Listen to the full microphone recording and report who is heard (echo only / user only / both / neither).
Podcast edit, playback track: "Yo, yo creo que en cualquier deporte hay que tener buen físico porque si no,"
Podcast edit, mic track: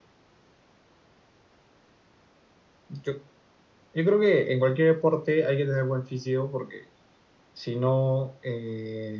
echo only